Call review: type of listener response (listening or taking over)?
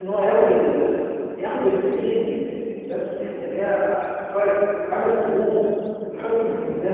listening